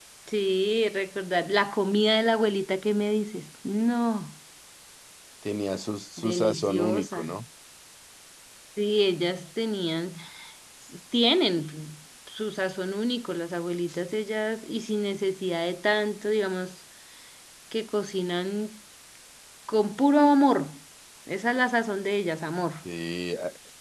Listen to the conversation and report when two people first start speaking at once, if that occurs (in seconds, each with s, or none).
6.2 s